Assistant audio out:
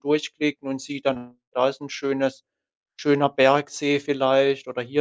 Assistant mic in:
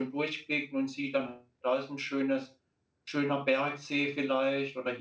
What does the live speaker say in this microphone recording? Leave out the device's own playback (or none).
none